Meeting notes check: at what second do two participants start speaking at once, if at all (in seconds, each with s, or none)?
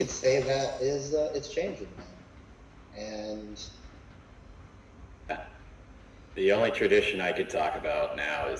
none